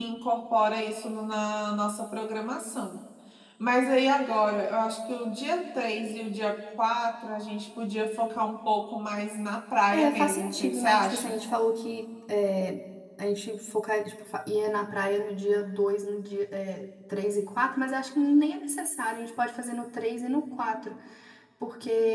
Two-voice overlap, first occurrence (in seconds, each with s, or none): 9.9 s